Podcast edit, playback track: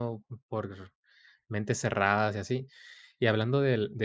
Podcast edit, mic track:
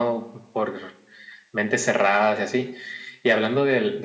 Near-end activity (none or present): none